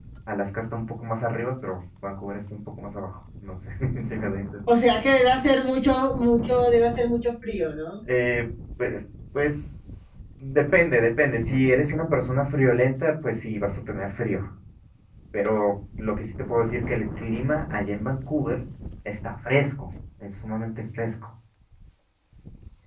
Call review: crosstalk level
none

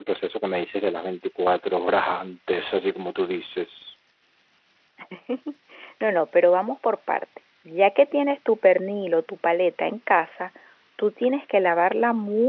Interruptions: none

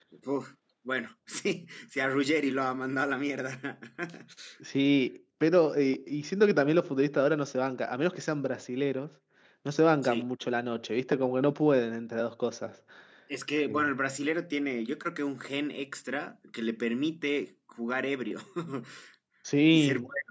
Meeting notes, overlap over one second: none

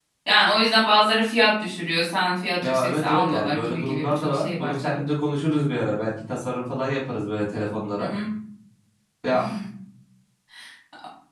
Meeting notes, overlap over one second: present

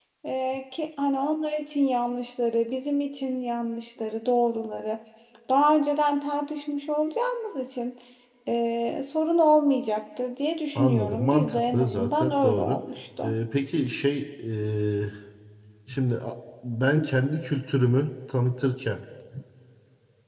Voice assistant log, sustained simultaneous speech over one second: present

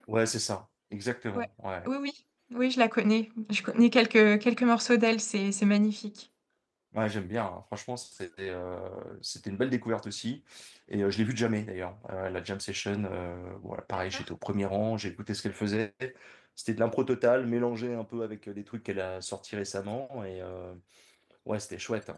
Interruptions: none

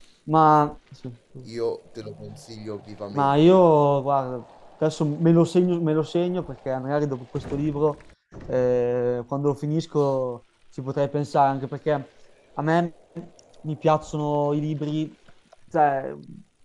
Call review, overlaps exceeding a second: none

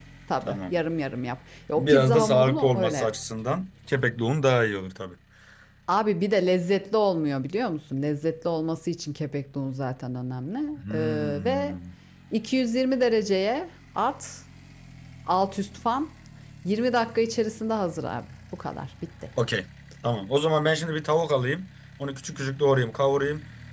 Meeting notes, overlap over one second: present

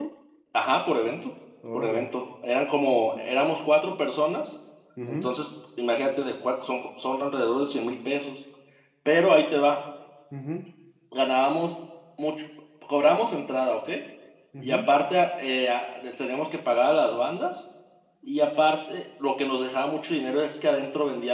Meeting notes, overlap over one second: none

